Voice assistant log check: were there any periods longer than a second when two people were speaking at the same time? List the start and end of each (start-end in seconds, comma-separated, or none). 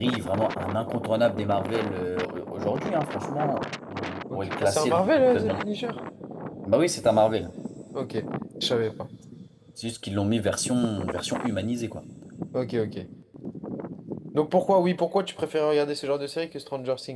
4.3-5.6